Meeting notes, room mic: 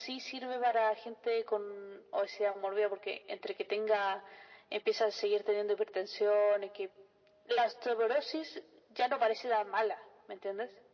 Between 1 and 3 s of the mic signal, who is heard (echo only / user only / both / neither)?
echo only